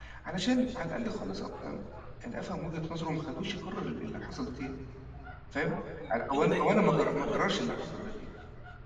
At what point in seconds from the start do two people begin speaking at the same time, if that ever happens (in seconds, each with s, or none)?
6.1 s